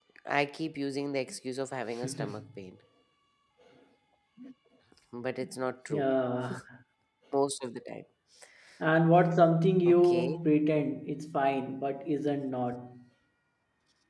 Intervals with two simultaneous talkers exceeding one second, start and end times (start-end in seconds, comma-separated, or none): none